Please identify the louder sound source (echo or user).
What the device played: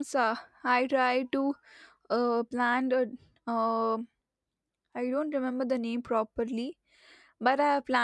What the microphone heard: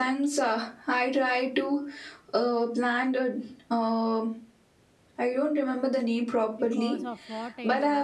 echo